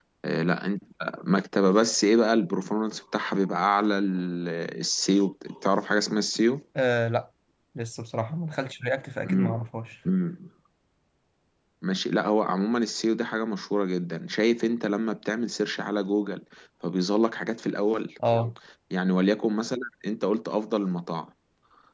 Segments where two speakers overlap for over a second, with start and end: none

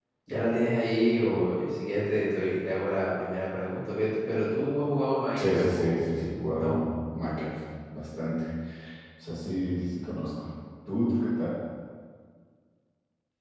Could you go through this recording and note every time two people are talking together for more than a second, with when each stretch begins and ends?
5.3-6.8

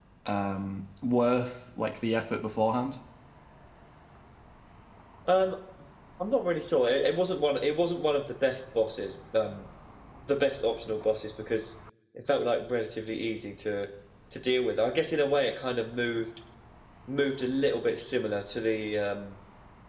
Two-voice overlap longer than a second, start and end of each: none

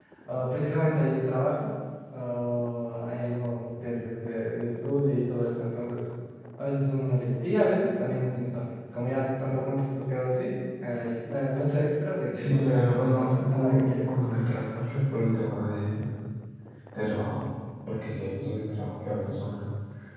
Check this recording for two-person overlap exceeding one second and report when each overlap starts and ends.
12.3-13.9

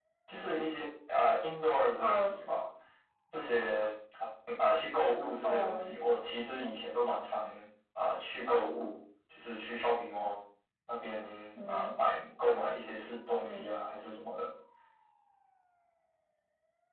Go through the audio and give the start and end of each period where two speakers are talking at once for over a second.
none

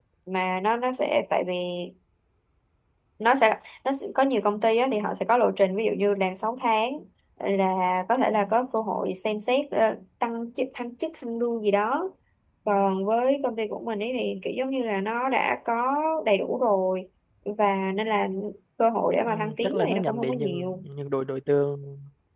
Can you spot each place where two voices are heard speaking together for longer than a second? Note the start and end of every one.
19.3-20.8

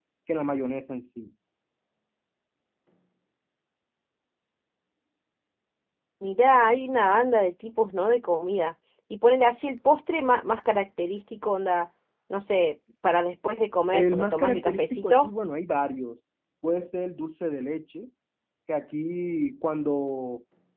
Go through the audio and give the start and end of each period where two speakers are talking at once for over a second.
13.9-15.3

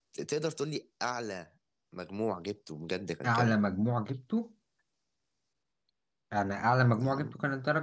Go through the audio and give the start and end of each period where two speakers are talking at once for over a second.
none

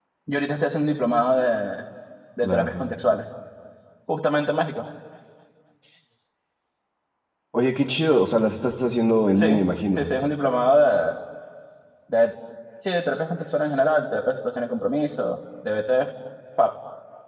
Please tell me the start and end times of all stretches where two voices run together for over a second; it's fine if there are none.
none

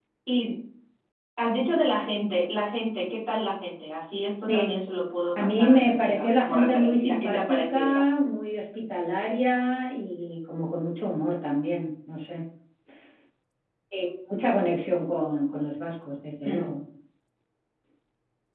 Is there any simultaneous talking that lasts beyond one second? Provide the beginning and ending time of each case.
5.4-8.0

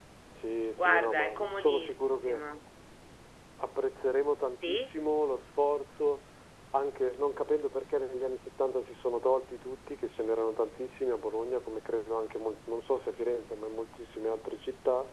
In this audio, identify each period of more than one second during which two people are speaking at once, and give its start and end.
0.8-2.4

